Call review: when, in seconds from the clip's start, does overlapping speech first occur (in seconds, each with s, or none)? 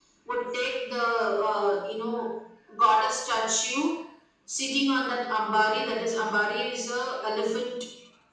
none